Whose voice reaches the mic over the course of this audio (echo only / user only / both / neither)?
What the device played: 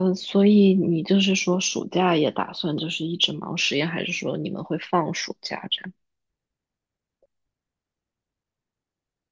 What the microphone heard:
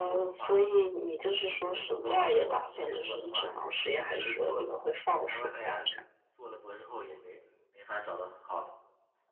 both